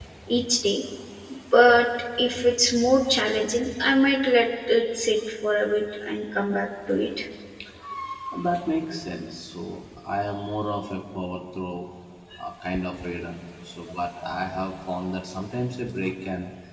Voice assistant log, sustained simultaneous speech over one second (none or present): none